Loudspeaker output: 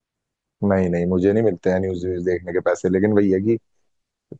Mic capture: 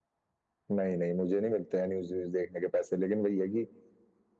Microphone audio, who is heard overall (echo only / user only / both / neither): echo only